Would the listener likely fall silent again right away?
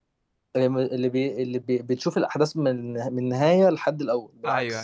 No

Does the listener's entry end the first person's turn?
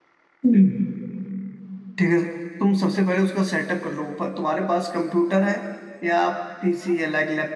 No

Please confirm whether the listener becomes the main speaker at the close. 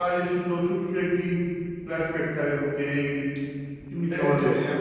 Yes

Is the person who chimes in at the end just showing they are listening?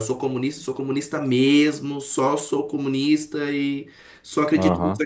Yes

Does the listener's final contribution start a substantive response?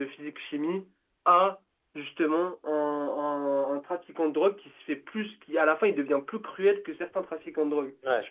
Yes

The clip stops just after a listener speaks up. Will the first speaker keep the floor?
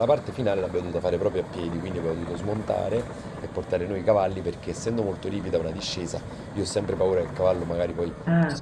Yes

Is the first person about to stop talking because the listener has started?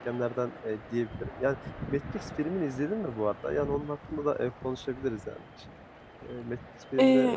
Yes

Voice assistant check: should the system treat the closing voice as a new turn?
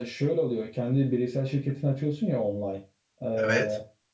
No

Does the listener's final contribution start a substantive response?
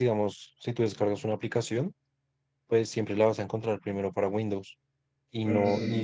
No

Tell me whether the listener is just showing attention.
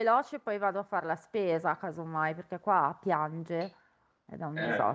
No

